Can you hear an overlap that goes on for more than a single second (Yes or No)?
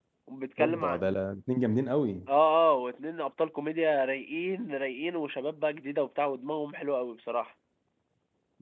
No